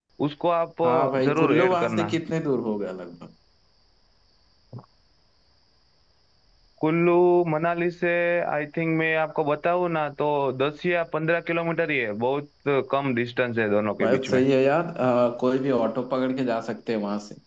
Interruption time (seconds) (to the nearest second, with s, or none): 1 s